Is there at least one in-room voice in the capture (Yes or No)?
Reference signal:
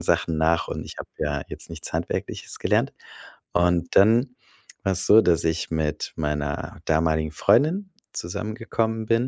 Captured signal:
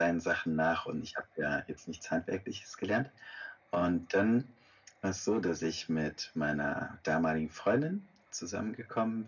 No